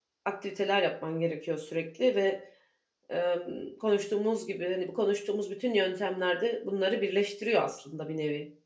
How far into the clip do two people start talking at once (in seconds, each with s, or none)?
none